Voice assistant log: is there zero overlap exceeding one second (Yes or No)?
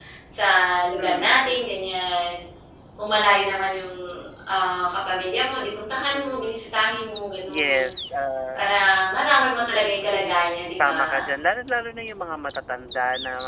Yes